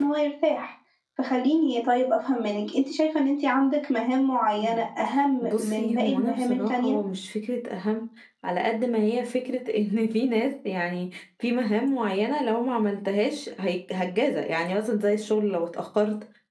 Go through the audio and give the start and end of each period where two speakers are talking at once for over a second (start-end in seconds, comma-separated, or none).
5.4-7.0